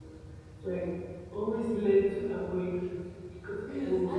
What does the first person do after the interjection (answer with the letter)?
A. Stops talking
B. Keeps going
A